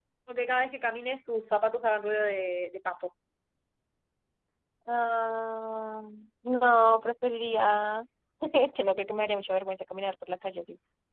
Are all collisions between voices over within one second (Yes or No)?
Yes